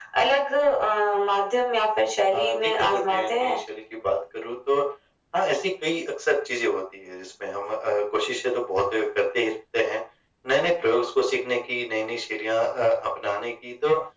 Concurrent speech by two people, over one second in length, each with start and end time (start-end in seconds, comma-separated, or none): 2.3-3.6